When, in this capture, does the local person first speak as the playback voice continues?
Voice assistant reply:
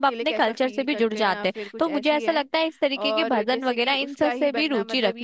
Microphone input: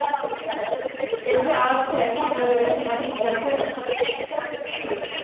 1.2 s

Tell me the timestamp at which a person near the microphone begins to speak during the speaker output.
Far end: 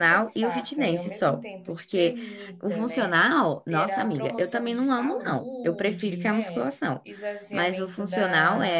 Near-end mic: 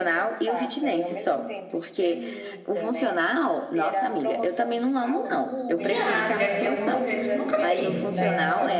5.8 s

